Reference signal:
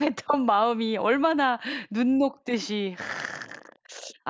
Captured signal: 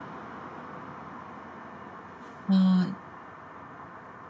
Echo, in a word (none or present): none